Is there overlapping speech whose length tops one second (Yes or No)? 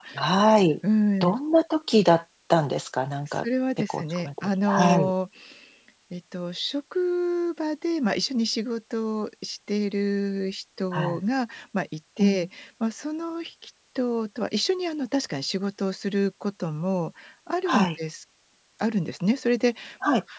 Yes